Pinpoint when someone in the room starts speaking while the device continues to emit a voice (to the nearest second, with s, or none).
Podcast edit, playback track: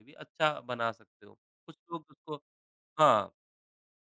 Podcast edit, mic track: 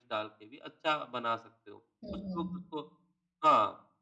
2 s